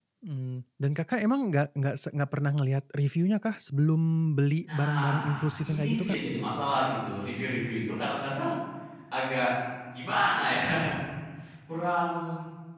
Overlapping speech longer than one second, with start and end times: 4.6-6.2

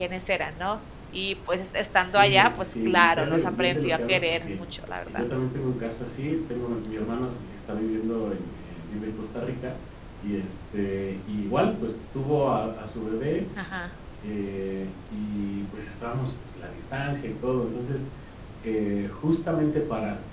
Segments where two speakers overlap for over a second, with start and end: 1.9-4.6

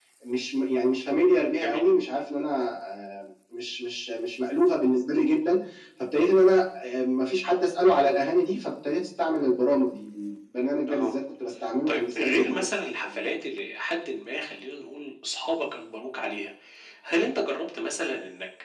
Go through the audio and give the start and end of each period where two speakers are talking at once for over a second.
11.9-13.3

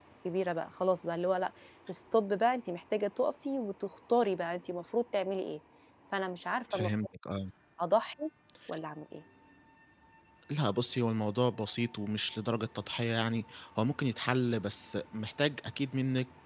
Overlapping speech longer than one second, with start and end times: none

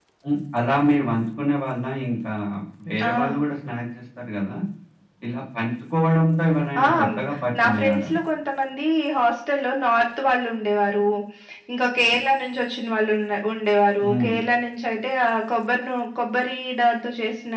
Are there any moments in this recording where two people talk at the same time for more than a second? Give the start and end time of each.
none

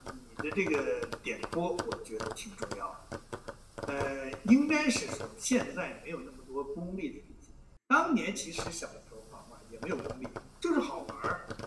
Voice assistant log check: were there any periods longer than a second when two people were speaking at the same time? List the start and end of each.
none

